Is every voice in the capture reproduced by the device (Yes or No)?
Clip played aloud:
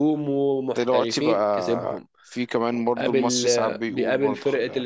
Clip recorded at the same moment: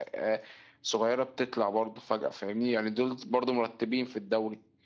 No